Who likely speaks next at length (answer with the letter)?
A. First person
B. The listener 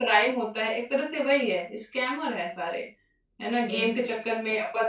A